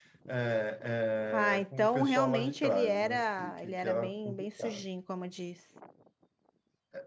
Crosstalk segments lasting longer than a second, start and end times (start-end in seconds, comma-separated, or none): 1.3-4.8